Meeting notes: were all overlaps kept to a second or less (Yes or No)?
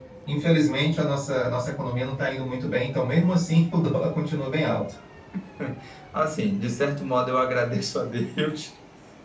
Yes